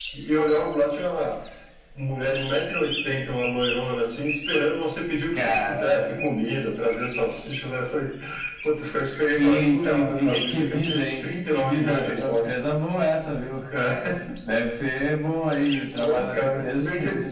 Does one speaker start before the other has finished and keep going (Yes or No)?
Yes